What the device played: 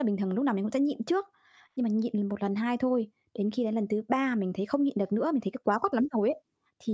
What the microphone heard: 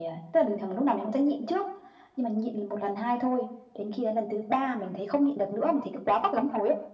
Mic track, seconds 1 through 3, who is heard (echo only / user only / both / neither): echo only